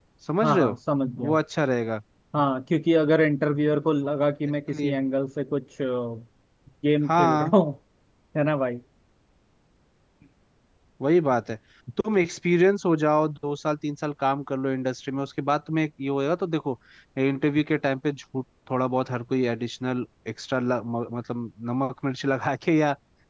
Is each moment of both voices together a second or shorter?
Yes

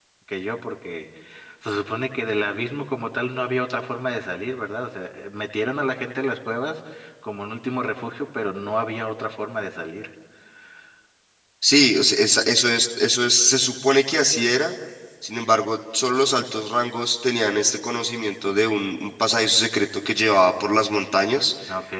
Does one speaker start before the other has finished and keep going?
No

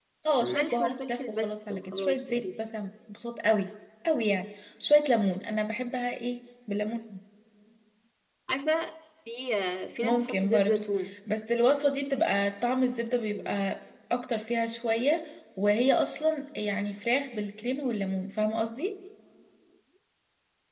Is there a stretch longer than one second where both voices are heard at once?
Yes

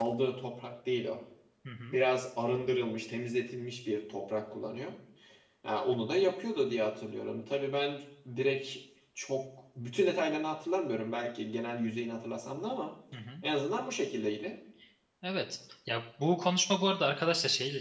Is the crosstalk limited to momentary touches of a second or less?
Yes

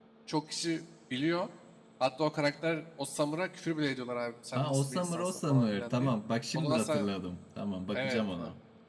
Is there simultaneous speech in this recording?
Yes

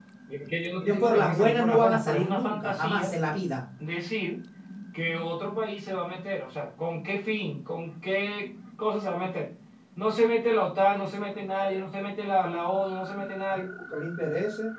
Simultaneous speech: Yes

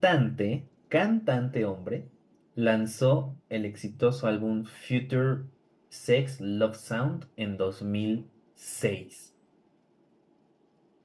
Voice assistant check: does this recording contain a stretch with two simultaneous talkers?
No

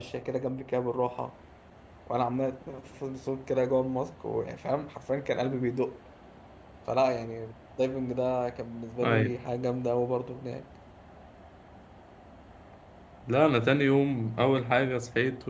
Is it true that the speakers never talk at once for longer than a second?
Yes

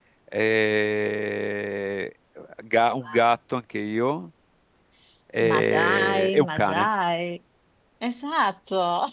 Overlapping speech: Yes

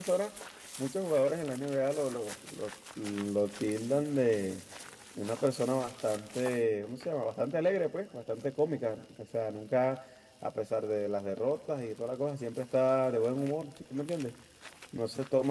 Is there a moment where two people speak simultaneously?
No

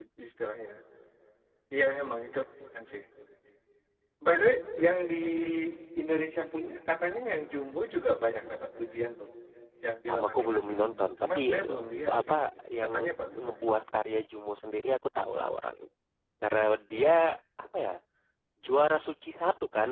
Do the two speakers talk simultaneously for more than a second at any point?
Yes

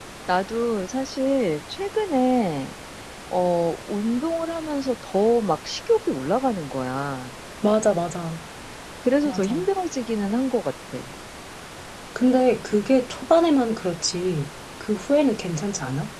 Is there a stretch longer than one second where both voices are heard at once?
No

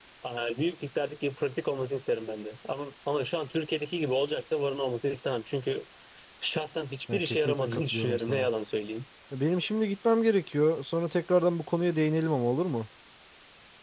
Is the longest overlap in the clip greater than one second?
Yes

